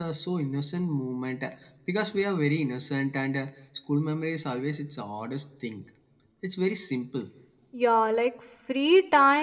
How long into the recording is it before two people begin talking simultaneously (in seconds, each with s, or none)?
none